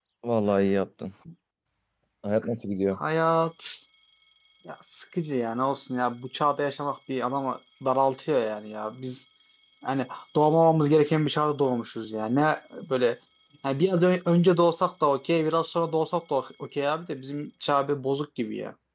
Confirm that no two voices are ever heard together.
Yes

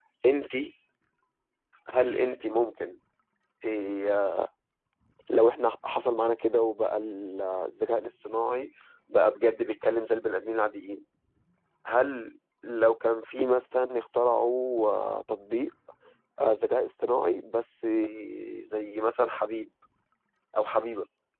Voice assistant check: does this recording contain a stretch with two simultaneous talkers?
No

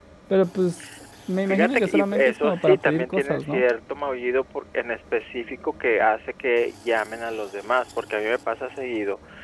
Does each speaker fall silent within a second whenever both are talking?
No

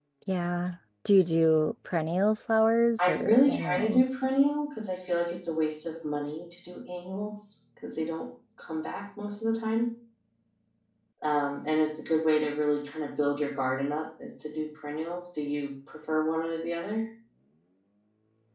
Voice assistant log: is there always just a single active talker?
No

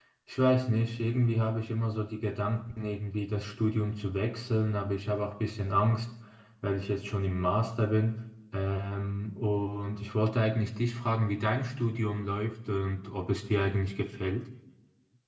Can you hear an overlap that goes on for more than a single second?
No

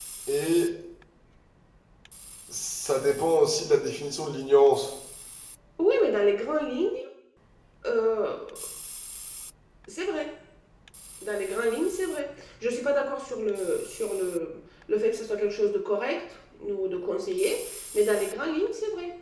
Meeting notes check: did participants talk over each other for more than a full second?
No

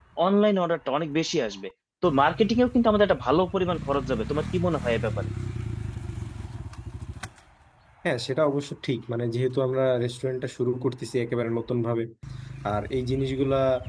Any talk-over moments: No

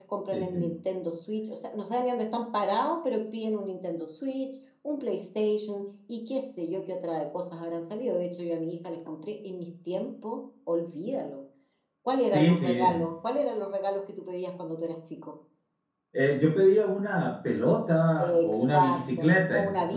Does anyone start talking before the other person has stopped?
Yes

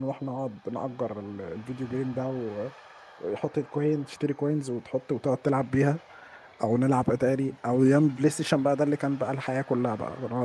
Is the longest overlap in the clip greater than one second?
No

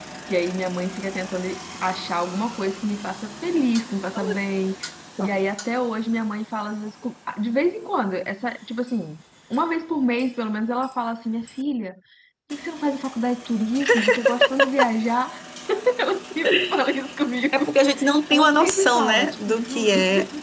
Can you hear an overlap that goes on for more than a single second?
Yes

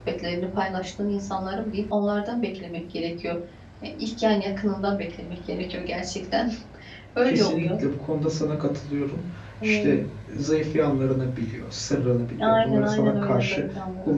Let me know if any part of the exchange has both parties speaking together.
Yes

